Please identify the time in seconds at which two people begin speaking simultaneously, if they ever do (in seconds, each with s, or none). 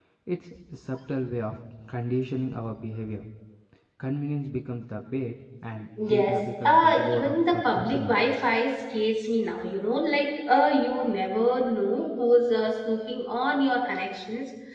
6.0 s